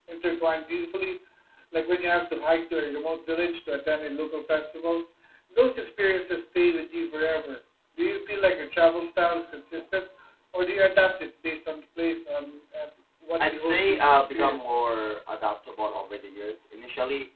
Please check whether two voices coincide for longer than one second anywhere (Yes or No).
Yes